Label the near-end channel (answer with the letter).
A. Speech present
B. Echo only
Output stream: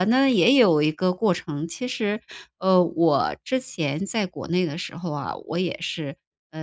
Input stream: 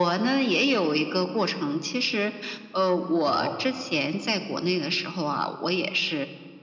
A